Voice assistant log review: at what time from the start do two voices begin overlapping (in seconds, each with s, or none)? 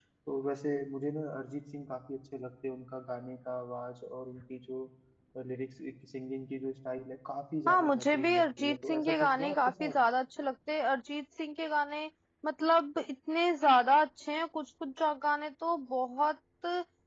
7.7 s